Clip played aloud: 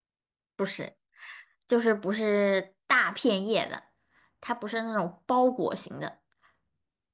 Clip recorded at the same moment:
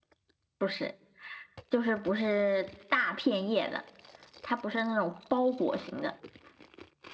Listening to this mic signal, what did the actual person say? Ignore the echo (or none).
none